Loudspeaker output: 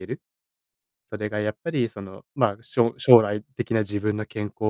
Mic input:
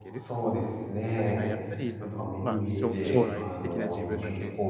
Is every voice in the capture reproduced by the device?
No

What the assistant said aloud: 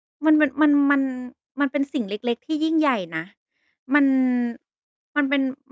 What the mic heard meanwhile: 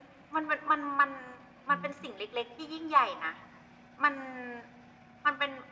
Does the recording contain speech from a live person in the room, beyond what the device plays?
Yes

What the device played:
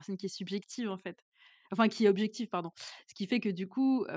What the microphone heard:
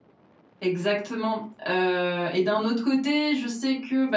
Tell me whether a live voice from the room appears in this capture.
Yes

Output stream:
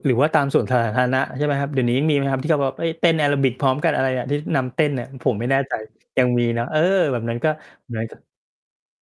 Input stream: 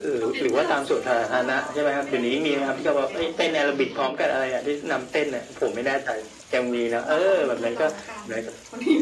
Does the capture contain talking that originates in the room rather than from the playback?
Yes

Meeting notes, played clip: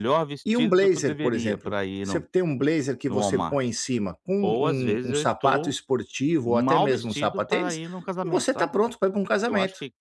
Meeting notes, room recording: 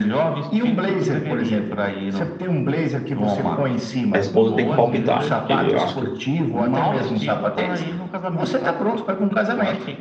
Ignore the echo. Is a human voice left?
Yes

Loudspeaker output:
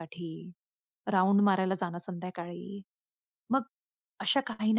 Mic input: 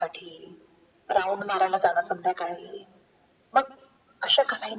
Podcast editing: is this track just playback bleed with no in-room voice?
Yes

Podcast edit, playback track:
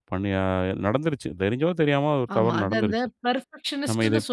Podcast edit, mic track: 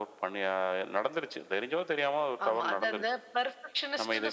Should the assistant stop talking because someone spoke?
No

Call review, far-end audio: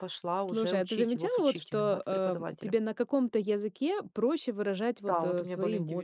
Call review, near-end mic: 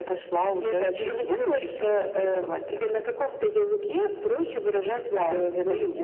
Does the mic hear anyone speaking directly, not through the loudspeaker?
No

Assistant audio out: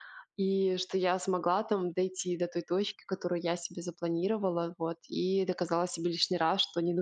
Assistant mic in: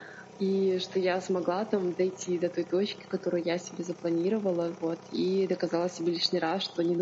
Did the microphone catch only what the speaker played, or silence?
Yes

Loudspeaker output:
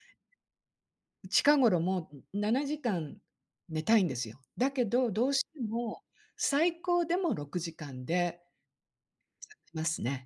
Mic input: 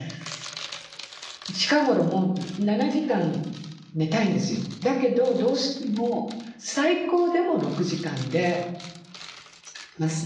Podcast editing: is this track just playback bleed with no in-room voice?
Yes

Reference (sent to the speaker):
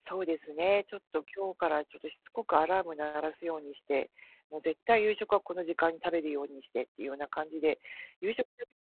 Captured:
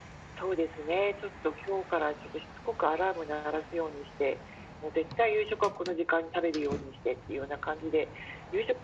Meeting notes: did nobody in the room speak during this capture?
Yes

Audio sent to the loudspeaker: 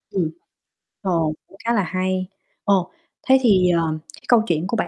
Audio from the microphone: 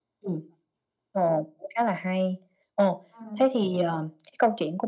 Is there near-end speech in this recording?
Yes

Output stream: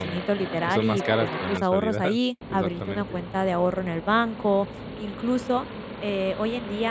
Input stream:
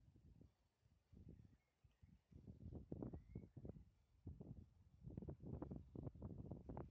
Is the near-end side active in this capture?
No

